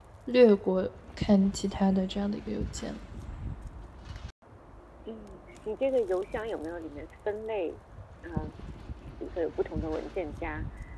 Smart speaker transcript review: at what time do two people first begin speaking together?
none

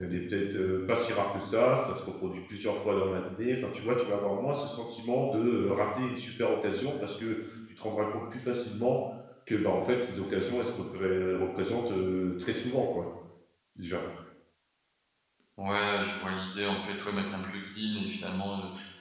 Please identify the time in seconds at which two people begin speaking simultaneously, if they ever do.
none

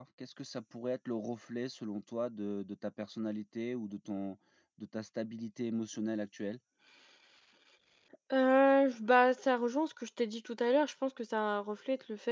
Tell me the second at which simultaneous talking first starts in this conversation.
none

